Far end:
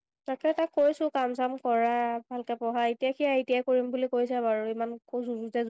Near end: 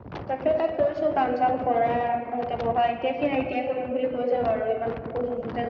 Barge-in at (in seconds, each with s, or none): none